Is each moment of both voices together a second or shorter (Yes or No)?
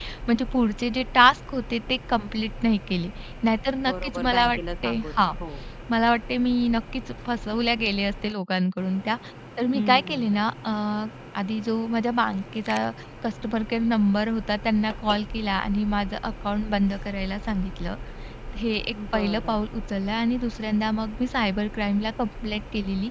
No